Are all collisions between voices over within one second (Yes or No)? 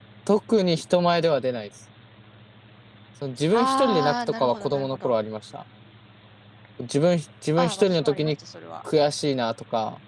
No